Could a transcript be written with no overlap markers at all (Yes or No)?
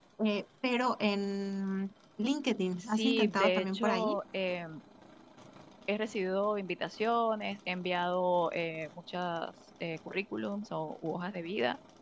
No